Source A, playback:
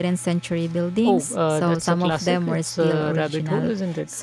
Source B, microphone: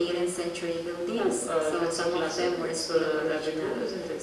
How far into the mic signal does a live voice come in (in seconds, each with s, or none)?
none